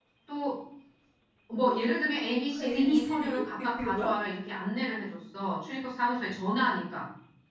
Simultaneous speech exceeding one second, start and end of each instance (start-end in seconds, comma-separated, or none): 2.6-4.1